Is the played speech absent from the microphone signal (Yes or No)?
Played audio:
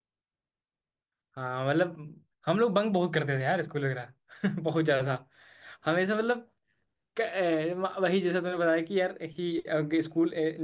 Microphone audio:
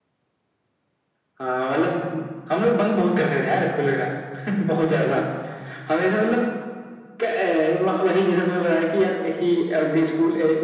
No